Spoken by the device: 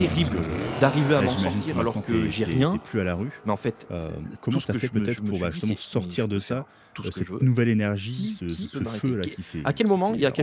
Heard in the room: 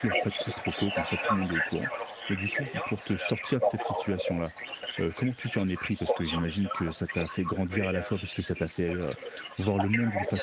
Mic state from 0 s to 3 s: both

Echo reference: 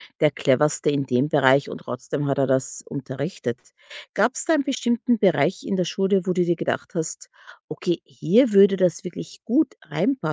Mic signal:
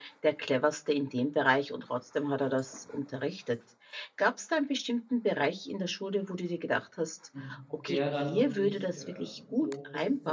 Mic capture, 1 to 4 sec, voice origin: echo only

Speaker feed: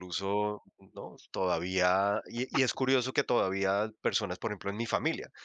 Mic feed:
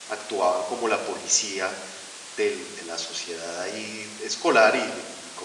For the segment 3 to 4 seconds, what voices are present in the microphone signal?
user only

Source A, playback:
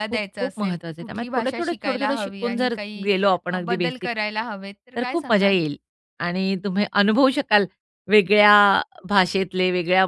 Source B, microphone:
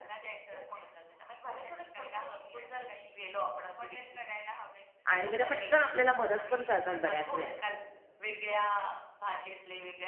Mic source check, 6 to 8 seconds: both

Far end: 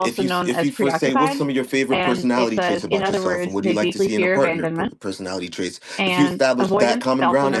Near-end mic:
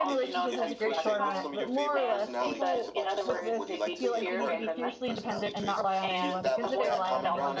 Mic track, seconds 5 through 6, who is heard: both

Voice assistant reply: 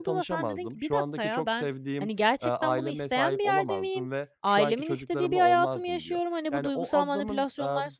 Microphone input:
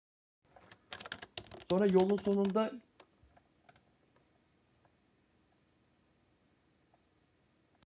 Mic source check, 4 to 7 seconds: neither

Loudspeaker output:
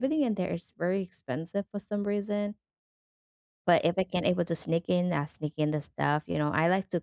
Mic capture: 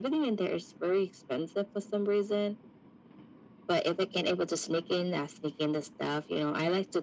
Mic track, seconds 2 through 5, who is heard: echo only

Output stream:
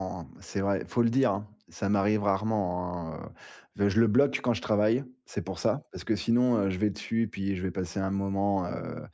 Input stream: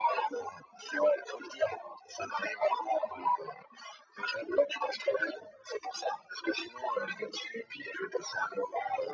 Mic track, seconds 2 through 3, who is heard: echo only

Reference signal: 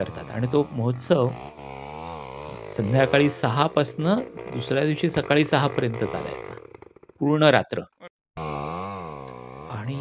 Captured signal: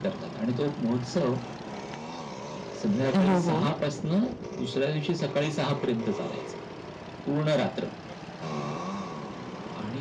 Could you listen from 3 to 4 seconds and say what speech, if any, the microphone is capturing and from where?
both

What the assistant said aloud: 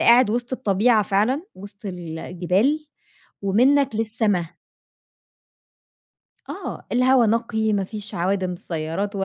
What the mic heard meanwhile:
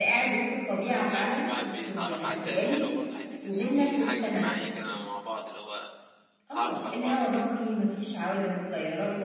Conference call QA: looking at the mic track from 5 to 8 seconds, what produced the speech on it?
both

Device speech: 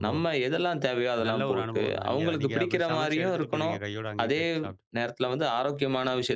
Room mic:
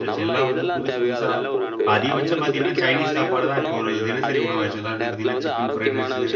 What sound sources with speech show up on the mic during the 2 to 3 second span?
both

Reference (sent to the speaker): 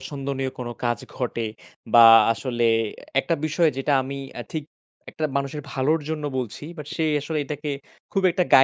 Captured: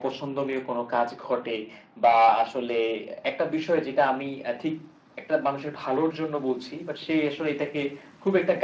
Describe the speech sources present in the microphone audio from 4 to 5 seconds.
echo only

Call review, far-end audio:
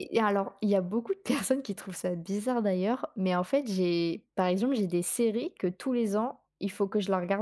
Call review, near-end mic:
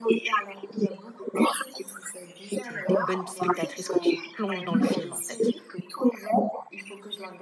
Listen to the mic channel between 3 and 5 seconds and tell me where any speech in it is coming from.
both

